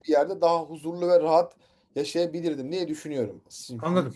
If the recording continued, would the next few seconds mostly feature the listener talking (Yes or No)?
No